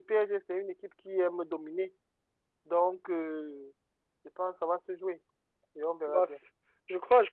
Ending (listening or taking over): taking over